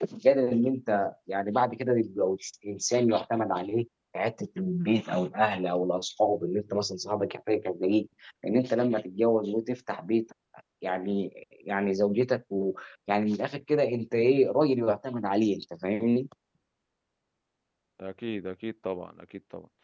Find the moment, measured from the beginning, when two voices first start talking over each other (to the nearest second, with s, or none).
none